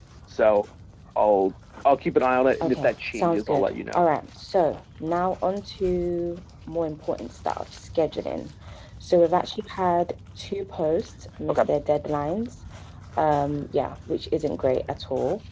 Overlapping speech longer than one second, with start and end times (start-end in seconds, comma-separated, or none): 2.6-4.0